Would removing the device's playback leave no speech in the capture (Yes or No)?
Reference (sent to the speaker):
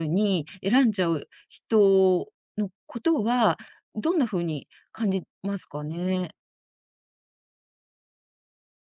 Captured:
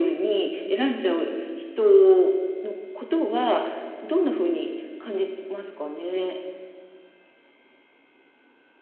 Yes